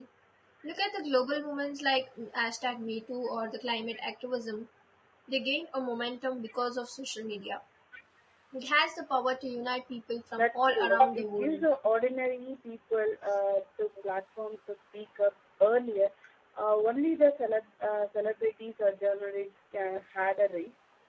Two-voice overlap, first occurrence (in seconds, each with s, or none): 10.3 s